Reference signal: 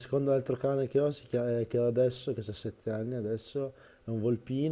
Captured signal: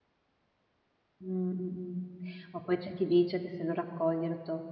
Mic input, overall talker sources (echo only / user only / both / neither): user only